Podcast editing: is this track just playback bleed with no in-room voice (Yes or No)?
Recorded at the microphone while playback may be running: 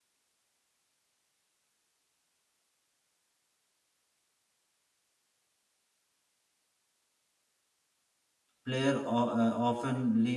No